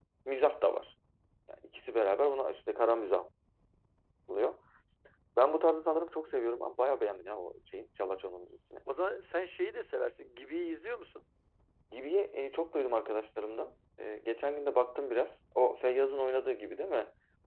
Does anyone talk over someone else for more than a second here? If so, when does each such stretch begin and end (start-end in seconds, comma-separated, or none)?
none